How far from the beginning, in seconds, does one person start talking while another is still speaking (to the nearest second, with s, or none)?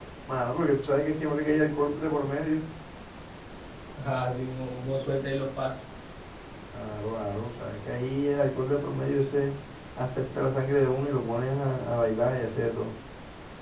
none